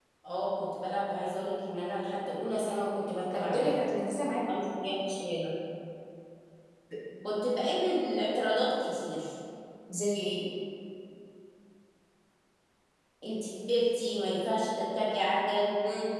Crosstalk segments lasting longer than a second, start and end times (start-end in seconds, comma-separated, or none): none